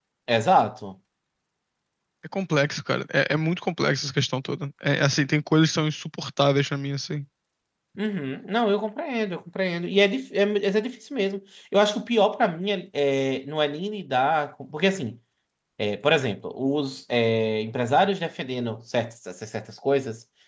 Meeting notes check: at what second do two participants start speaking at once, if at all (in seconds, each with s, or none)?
none